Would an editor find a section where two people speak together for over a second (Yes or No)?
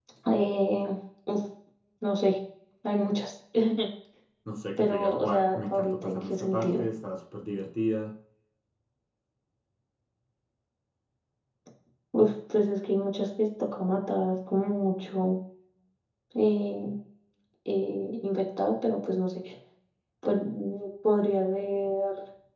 Yes